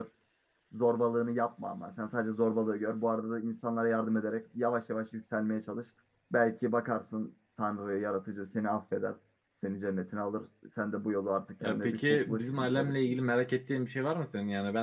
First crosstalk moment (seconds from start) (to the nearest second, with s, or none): 12 s